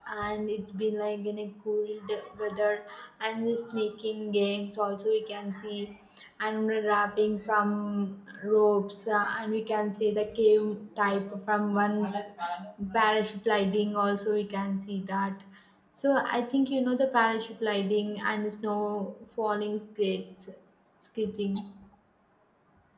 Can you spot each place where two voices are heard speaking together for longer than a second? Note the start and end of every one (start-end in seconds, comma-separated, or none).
none